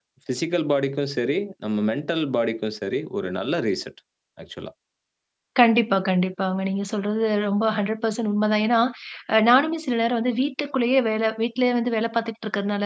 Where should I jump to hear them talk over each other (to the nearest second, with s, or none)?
none